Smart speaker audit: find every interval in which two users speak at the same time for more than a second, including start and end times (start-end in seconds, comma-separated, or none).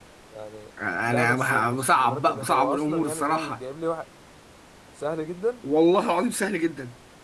1.1-3.6